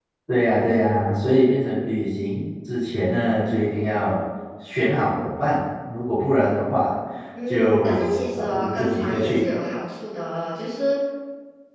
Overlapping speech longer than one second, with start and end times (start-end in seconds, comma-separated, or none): 7.5-9.4